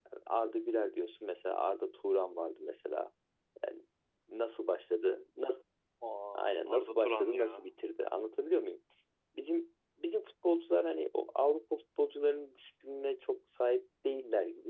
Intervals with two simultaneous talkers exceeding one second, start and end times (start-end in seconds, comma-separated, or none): 6.4-7.6